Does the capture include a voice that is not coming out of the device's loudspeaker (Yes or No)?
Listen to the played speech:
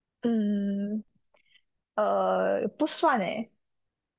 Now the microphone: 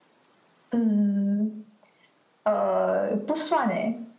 No